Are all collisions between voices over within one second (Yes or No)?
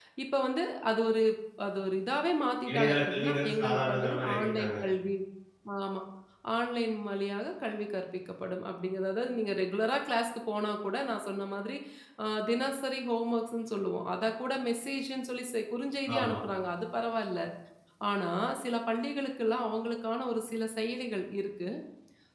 No